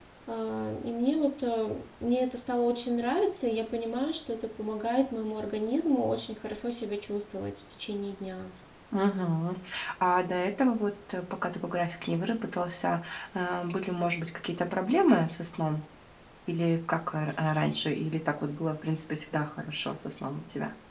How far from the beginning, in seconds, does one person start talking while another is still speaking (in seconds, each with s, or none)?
none